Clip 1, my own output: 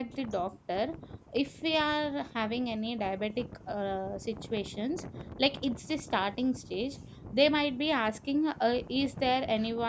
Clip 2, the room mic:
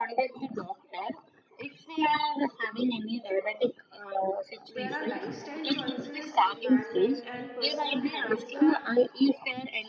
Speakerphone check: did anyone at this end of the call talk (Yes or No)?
Yes